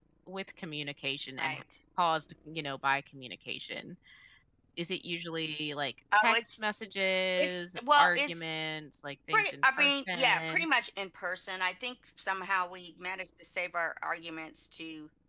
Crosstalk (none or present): present